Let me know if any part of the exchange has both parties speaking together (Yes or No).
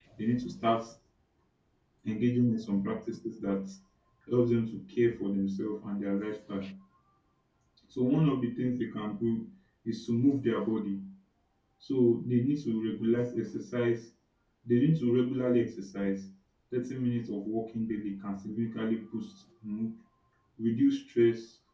No